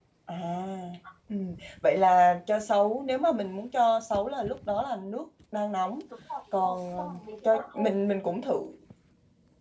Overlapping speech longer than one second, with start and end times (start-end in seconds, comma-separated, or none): 6.6-7.9